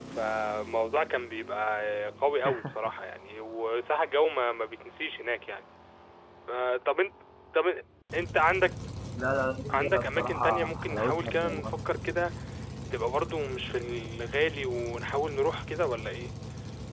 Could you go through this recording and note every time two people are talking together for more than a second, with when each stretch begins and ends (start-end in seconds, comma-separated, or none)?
9.7-11.8